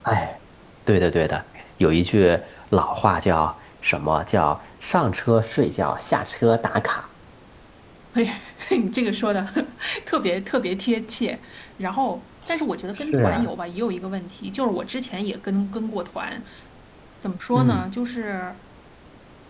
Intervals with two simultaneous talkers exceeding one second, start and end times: none

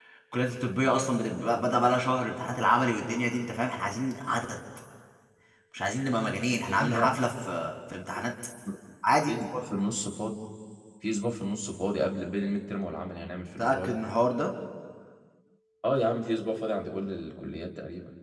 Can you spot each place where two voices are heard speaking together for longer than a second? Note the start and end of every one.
none

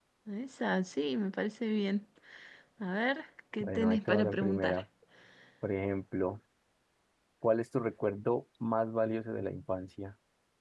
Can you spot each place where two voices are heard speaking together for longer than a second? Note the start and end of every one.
3.6-4.8

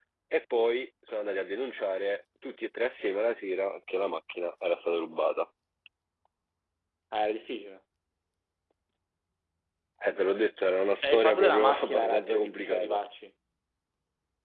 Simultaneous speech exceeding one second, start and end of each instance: 11.0-13.0

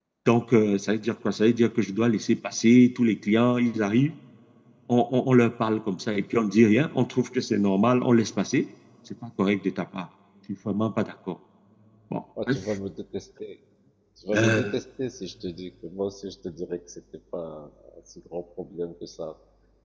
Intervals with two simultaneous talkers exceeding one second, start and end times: none

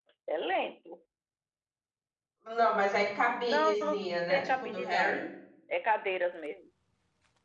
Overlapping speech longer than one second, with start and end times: 3.5-5.2

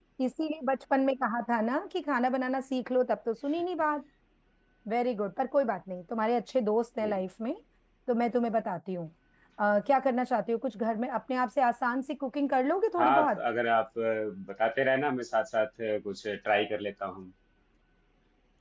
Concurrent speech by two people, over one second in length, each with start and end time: none

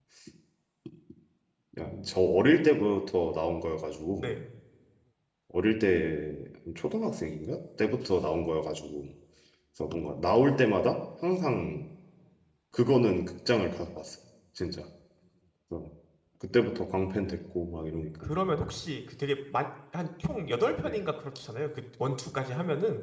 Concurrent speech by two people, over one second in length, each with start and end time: none

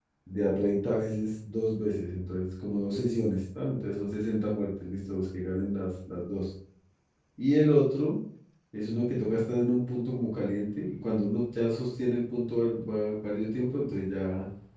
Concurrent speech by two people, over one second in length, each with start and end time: none

